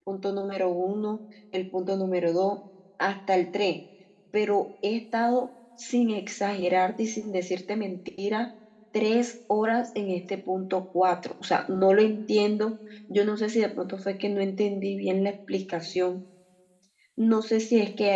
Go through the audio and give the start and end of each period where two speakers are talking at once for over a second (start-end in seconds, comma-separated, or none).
none